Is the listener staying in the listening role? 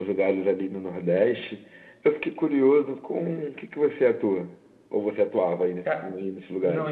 No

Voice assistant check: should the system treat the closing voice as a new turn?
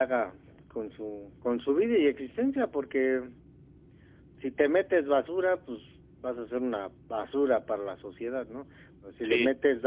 No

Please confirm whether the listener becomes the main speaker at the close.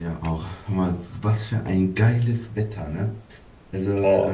No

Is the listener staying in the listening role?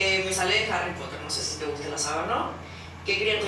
Yes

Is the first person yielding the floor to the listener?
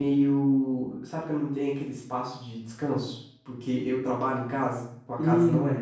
Yes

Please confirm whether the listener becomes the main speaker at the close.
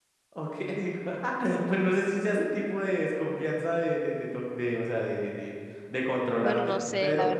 Yes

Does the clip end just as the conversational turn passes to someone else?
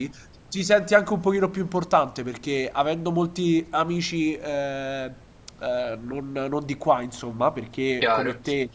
No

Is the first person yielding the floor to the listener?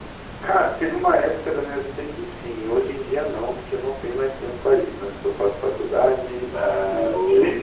No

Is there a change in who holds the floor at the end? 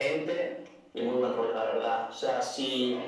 No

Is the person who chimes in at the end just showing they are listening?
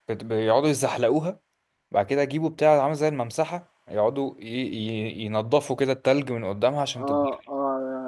No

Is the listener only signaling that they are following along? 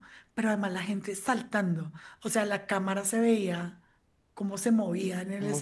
Yes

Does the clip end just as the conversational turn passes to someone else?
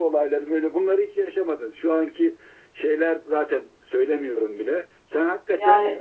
No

